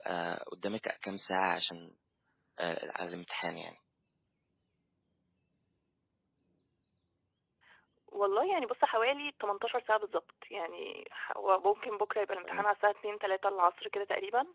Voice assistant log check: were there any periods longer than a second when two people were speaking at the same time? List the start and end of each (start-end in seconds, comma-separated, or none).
none